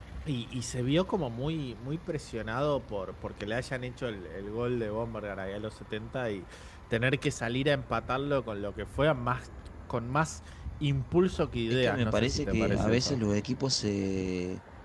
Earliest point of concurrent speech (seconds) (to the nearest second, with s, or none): 12 s